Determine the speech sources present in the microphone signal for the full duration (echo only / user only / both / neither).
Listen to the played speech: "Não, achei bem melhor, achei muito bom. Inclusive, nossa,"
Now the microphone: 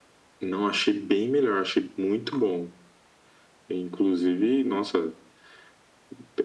echo only